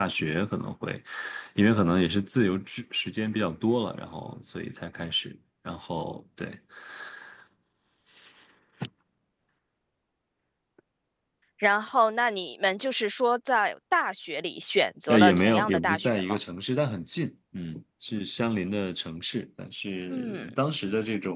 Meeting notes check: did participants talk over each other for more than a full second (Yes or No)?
Yes